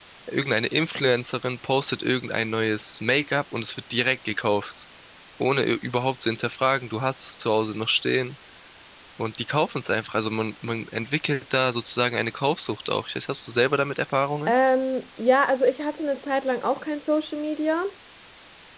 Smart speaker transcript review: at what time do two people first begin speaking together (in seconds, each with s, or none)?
none